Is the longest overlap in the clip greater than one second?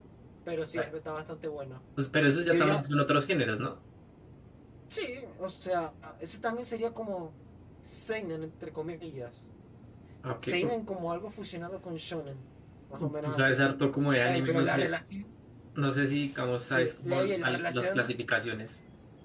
Yes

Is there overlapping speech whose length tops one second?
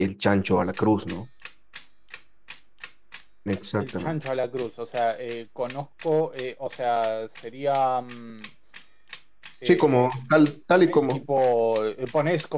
No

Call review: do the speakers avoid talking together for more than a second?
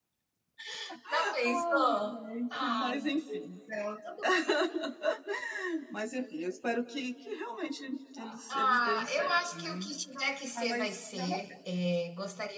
No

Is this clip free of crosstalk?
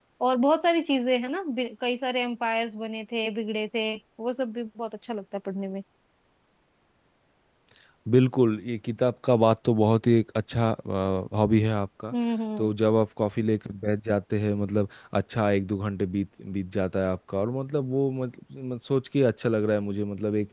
Yes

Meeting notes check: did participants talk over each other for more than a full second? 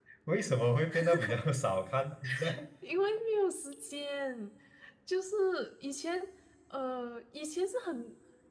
No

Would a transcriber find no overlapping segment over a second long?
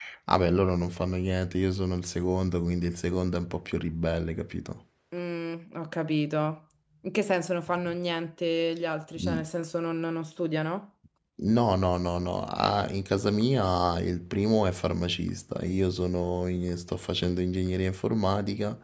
Yes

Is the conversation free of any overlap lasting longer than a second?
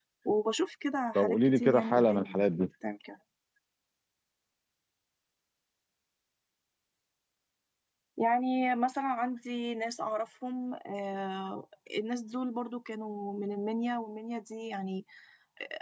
No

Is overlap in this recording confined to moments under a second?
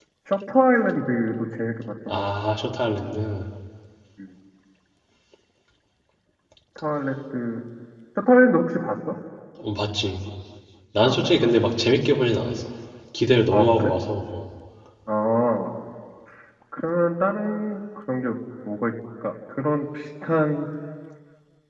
Yes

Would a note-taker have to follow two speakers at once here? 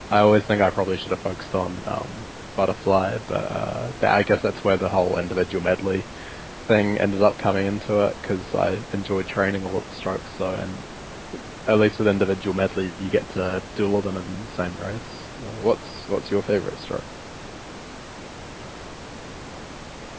No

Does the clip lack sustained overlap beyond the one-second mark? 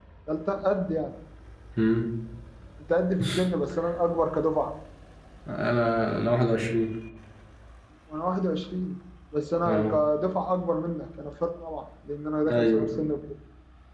Yes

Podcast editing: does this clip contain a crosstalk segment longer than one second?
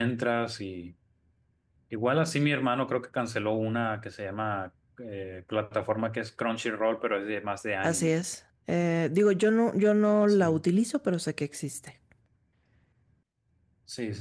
No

